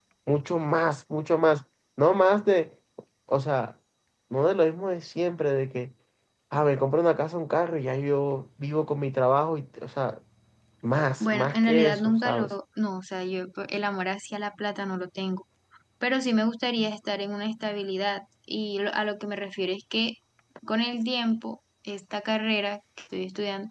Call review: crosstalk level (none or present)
present